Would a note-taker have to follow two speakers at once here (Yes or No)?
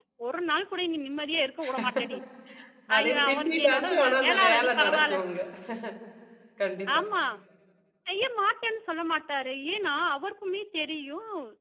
Yes